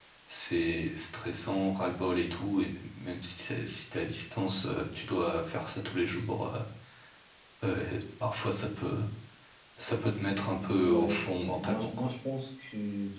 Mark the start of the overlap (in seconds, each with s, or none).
10.8 s